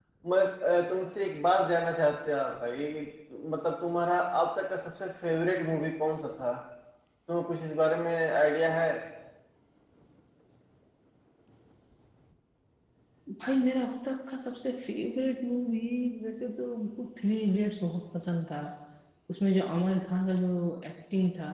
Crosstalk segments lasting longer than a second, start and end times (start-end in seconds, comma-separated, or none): none